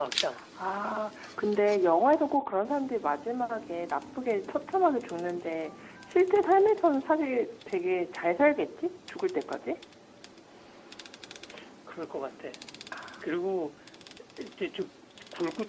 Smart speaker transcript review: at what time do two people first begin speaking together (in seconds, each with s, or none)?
none